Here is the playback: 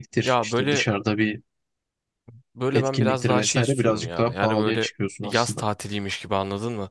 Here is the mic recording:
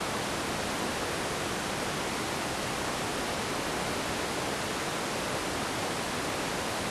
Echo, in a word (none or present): none